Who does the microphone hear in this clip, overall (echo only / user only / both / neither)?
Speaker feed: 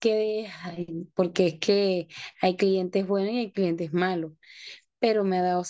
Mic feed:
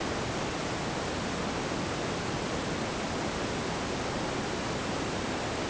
neither